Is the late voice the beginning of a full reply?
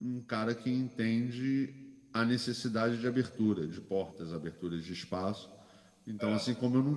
No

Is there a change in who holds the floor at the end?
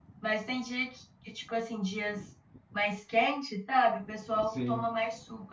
No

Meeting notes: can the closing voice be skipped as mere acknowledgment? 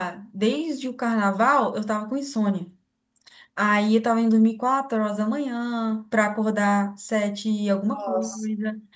Yes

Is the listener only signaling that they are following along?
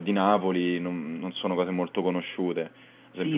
No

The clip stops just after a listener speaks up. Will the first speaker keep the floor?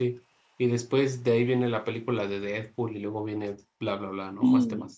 No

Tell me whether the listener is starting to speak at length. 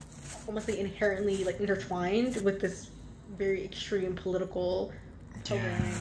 Yes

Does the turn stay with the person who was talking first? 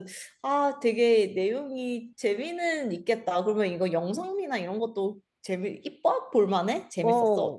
No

